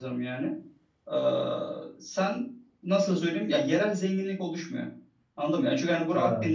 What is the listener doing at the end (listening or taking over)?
listening